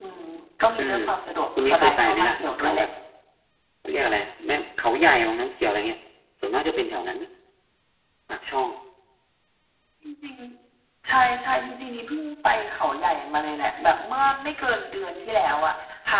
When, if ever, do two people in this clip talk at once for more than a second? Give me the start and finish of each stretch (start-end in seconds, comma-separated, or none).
1.6-2.8